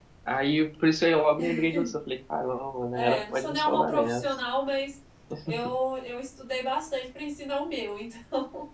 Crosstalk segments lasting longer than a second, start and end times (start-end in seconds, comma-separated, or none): 2.9-4.2